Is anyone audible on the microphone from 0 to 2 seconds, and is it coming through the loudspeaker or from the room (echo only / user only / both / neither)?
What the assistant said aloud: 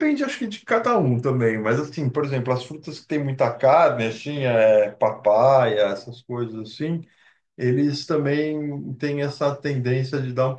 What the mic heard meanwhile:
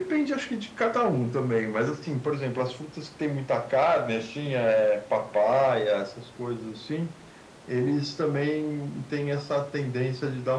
echo only